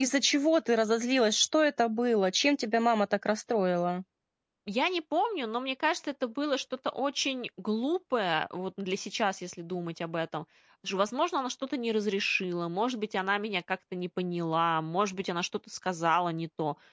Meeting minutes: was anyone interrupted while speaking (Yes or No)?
No